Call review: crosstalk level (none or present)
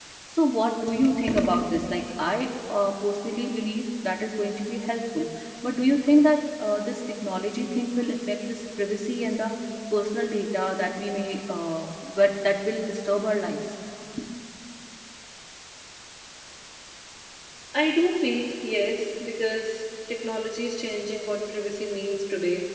none